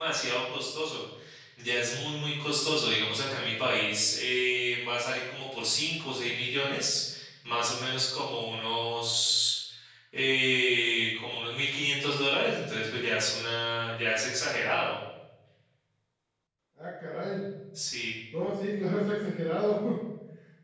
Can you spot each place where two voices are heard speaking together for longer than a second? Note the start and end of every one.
none

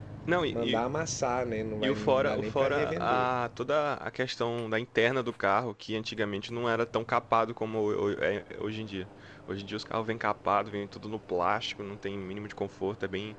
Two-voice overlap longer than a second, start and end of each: 1.8-3.3

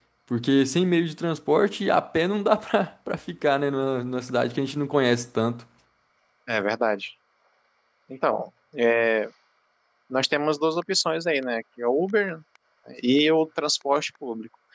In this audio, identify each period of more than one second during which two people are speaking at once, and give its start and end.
none

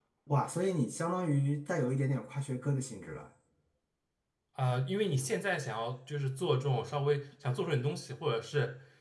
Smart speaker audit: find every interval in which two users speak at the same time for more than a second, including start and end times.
none

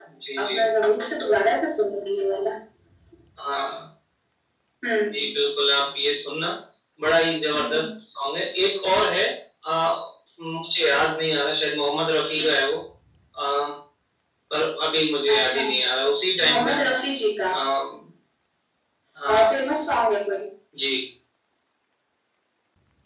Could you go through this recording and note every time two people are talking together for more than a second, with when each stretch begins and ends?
none

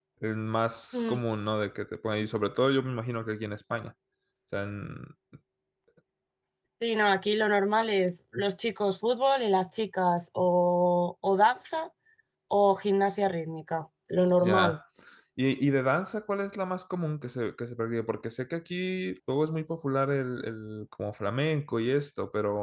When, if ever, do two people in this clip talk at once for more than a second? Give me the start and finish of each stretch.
none

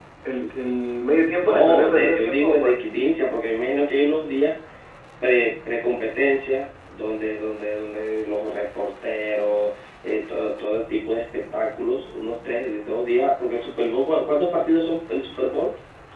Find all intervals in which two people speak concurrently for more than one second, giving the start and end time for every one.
1.1-2.8

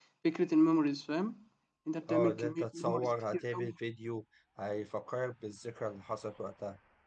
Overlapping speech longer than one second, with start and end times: 2.1-3.7

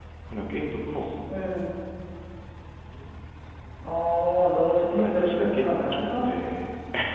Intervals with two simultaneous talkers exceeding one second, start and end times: 5.0-6.2

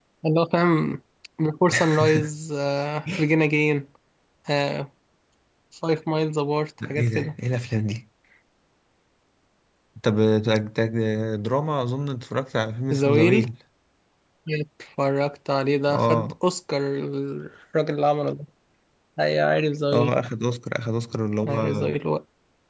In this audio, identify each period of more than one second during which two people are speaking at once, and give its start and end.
none

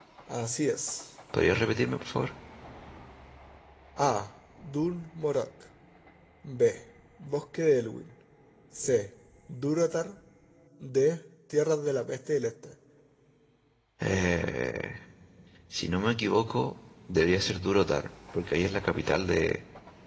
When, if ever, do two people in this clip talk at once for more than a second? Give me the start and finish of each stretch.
none

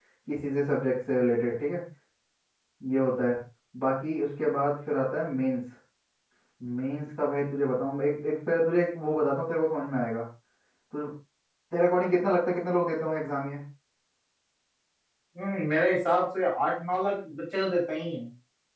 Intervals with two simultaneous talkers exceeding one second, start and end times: none

